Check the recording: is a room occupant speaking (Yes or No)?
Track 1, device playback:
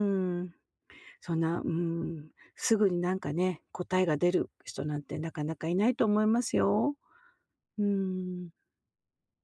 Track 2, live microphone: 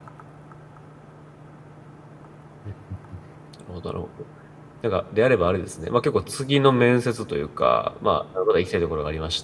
Yes